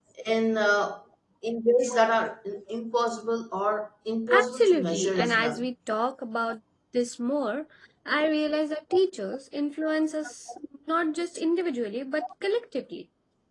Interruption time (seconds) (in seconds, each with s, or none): 4.3 s